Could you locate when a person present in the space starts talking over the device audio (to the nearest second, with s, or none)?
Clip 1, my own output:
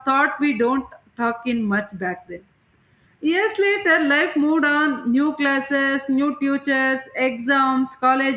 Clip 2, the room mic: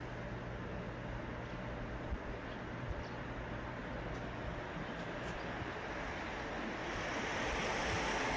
none